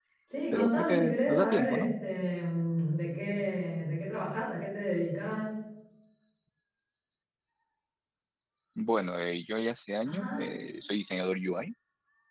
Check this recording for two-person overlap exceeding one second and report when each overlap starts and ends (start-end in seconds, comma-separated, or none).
0.5-1.9